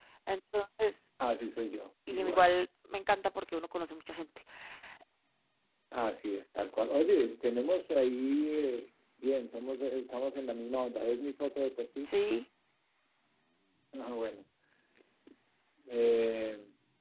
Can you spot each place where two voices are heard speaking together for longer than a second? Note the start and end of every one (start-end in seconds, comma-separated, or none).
none